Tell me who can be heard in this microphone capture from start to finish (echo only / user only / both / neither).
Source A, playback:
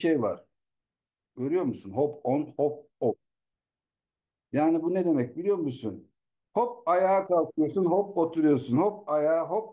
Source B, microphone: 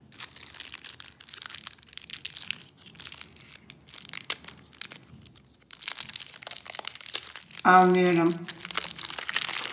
user only